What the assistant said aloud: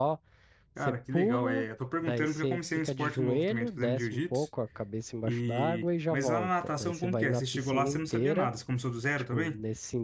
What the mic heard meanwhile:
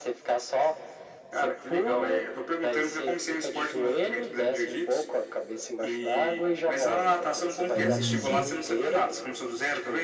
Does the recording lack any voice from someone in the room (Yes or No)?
No